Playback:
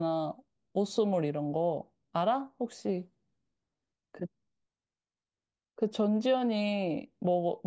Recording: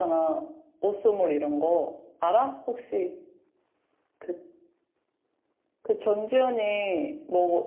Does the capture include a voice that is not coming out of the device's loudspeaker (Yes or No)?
No